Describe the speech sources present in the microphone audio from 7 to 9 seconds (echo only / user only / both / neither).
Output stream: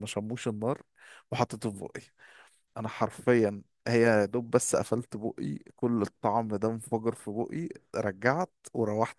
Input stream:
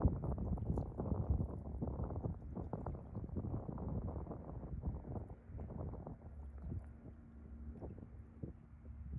neither